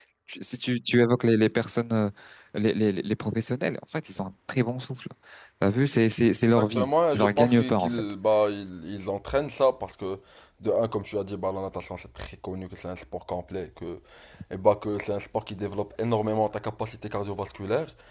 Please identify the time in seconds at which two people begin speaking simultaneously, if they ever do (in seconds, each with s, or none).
6.6 s